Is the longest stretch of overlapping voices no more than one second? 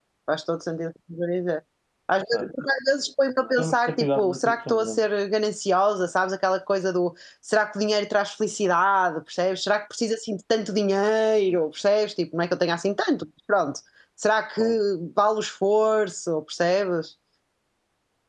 No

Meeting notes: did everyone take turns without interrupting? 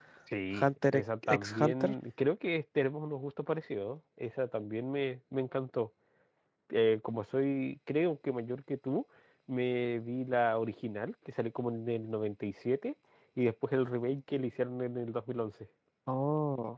No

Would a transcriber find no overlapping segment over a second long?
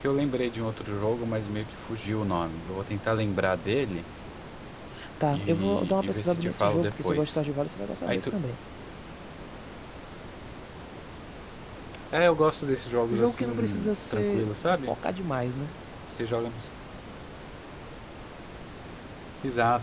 No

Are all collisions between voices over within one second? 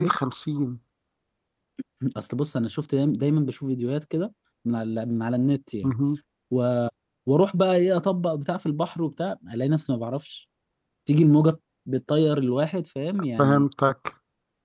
Yes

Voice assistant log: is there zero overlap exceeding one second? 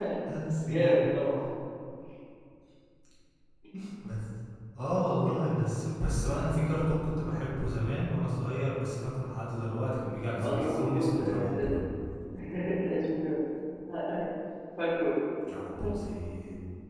No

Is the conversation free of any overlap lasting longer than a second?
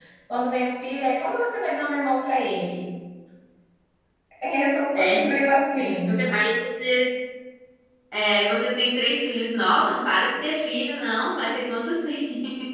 Yes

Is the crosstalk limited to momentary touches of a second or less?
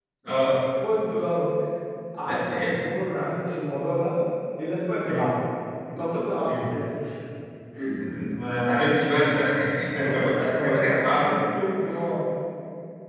No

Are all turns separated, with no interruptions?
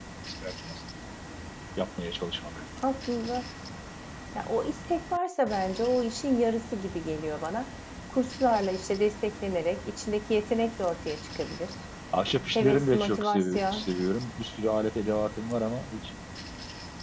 No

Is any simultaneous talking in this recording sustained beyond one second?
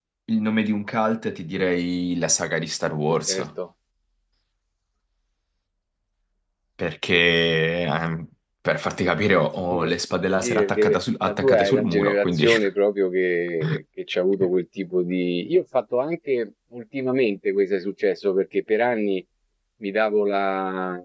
Yes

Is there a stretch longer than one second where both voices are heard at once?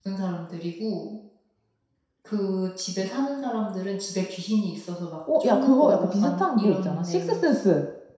Yes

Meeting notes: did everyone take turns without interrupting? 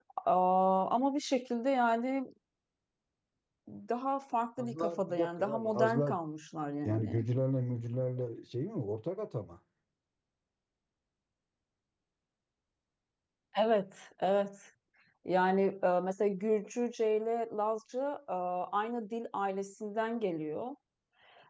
No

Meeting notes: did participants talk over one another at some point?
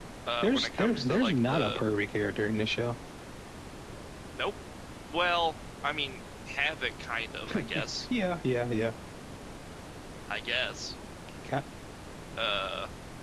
Yes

